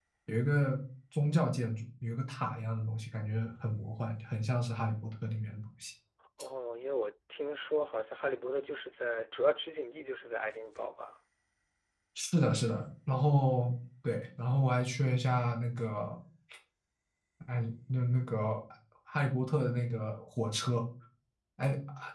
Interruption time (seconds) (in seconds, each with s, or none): none